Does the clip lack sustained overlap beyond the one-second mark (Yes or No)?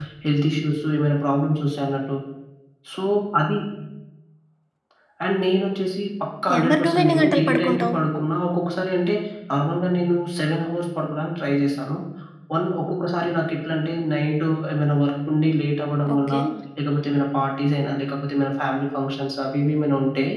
No